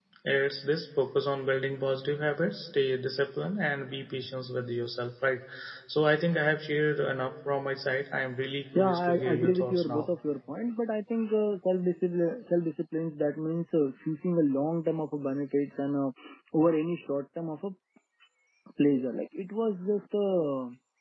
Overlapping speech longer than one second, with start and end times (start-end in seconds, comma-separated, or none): 8.8-10.1